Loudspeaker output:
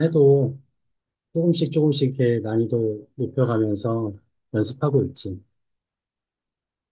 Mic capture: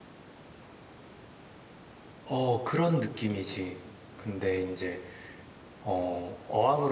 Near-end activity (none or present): present